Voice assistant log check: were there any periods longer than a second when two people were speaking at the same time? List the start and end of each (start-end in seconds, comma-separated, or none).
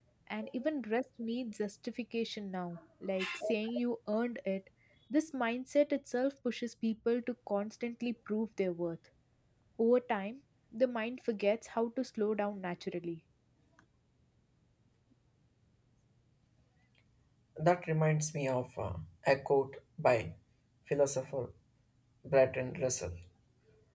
none